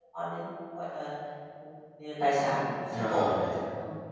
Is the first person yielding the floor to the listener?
Yes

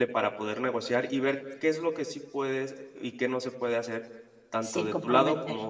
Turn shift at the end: No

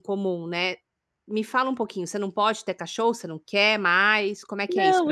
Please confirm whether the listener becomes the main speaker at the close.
Yes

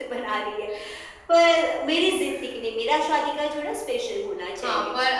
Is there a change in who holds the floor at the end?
Yes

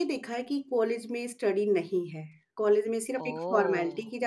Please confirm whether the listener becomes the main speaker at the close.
No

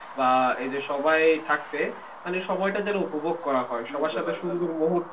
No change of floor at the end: Yes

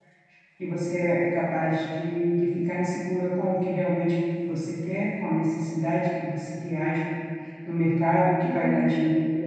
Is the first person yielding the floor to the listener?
No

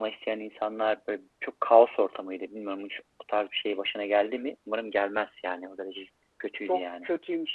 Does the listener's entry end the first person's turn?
Yes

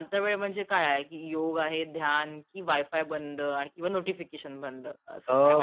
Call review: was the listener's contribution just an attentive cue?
No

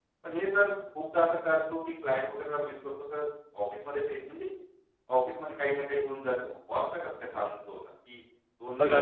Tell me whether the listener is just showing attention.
No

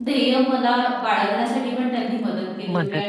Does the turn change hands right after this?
No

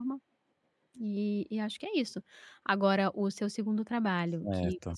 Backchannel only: Yes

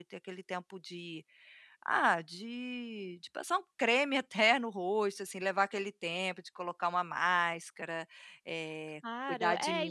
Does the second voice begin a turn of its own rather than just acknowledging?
Yes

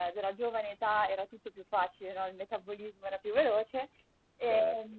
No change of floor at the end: Yes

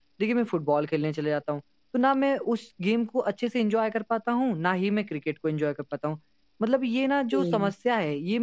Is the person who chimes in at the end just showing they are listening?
Yes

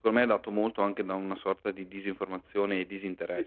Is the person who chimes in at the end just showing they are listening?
No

